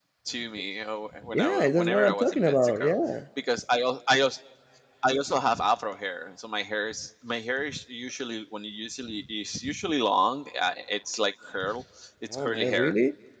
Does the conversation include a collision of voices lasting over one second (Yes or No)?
Yes